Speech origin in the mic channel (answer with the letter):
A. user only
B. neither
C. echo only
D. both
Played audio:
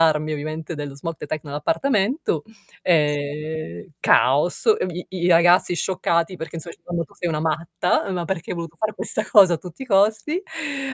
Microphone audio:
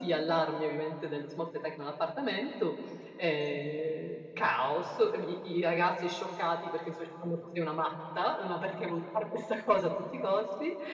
C